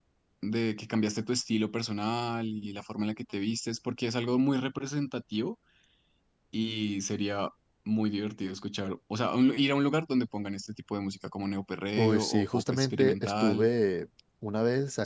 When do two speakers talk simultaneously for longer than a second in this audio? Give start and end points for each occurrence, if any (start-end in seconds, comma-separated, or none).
12.0-13.7